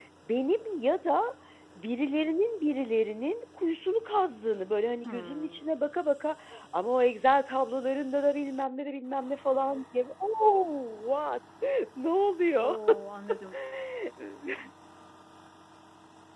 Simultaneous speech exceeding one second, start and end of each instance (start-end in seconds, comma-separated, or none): none